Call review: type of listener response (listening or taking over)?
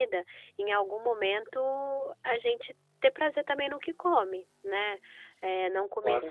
listening